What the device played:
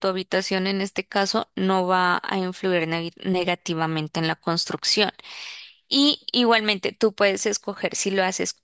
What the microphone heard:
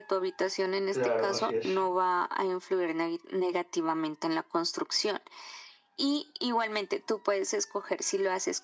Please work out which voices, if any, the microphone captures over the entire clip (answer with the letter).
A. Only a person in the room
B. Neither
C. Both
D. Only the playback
C